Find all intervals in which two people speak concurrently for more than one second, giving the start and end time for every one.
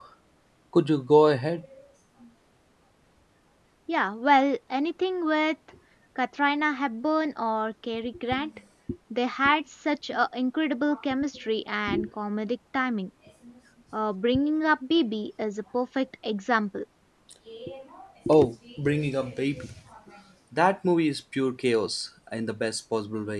none

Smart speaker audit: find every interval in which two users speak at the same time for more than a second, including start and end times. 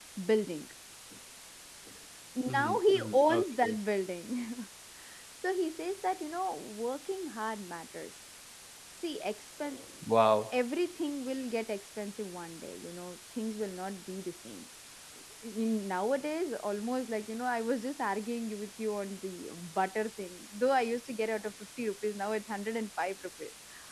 2.5-3.8

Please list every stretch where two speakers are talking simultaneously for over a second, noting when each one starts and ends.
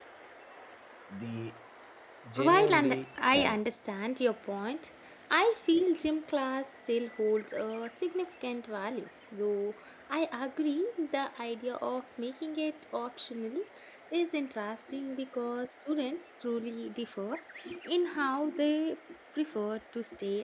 2.4-3.6

